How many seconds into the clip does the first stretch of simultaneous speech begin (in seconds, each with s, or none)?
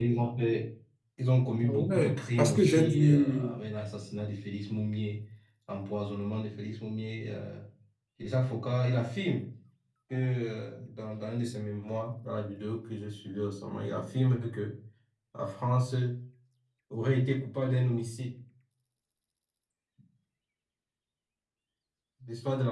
1.6 s